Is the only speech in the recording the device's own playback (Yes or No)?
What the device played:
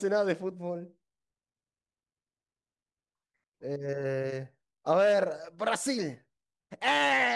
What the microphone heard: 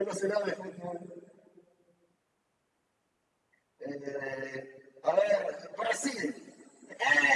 Yes